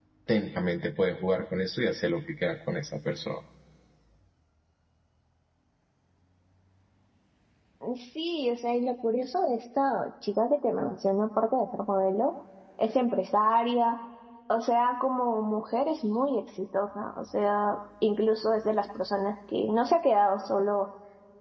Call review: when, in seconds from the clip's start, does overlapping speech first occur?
none

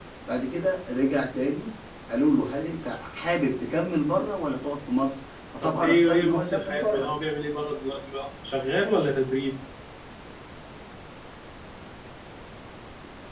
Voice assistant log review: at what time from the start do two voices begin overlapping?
6 s

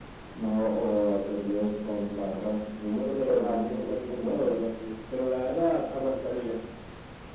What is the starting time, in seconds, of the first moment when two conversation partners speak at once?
3 s

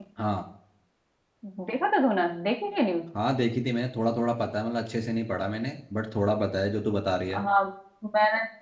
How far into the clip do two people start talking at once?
none

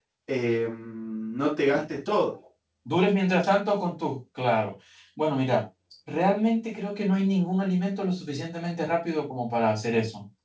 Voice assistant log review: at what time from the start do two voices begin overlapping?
none

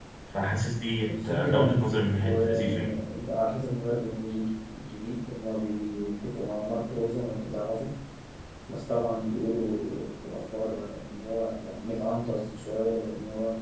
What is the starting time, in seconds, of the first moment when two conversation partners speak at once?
1 s

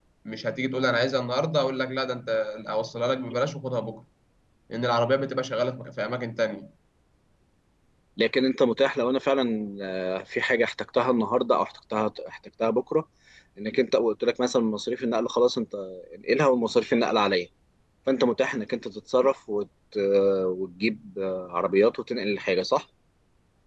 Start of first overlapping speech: none

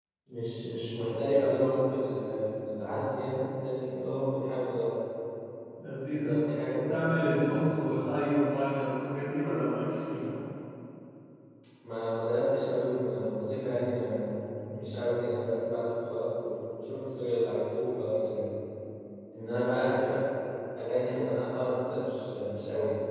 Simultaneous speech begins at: 6 s

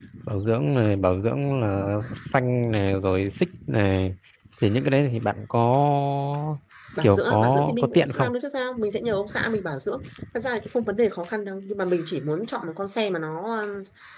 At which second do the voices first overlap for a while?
7 s

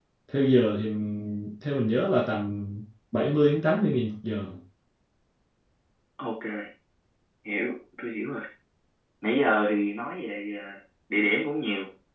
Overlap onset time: none

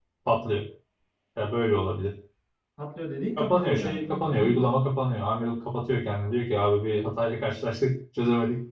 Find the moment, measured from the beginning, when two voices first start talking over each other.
3 s

